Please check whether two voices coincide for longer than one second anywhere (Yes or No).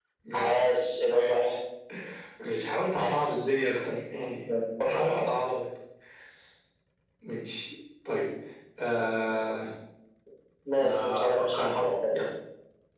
Yes